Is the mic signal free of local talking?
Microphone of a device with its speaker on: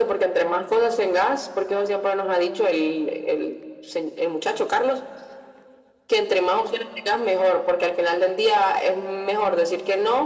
Yes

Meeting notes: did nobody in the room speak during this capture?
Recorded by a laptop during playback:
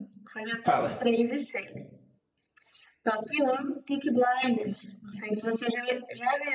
No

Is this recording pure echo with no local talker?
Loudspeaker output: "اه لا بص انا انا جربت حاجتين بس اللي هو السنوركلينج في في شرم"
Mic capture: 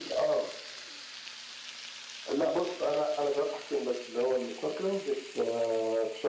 Yes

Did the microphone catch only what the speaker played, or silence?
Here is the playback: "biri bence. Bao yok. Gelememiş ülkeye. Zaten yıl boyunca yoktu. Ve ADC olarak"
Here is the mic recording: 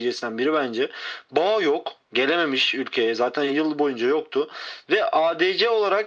Yes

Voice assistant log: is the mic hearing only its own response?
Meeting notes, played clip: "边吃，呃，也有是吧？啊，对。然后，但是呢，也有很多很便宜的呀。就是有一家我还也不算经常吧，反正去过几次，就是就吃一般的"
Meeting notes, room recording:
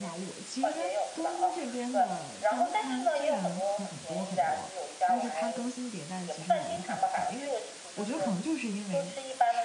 No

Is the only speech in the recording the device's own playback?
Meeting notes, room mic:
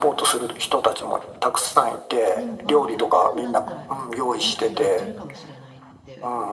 No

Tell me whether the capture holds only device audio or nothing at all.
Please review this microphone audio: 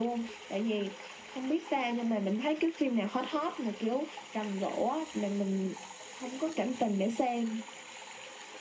Yes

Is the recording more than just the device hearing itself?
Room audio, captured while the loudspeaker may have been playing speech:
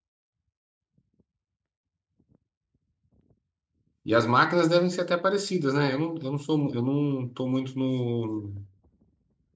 Yes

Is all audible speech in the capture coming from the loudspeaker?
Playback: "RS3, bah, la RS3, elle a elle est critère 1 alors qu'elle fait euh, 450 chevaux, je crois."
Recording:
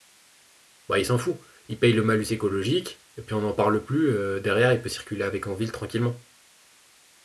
No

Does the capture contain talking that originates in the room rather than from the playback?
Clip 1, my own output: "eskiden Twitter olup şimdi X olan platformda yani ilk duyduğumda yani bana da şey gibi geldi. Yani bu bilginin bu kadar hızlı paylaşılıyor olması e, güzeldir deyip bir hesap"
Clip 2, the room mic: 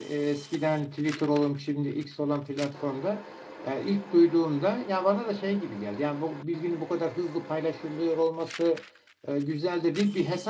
No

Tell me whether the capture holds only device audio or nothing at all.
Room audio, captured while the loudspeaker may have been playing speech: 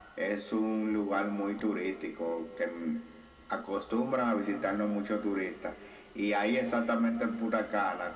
Yes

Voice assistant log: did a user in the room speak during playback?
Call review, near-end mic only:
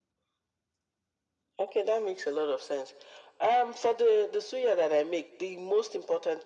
No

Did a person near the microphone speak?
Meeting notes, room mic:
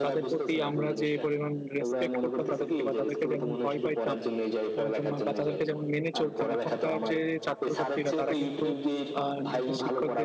Yes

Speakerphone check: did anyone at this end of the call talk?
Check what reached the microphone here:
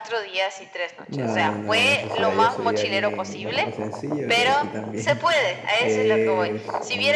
Yes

